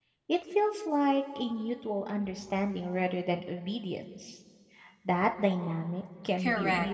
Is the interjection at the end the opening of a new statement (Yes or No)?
Yes